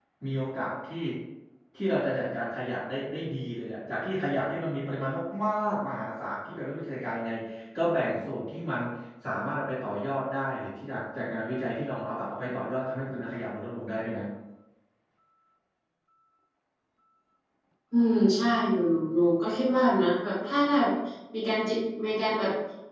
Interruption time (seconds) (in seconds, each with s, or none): none